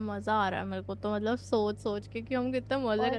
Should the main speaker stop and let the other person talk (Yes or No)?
No